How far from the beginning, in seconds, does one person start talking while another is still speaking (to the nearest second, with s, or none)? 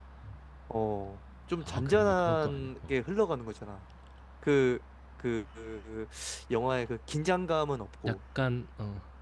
2 s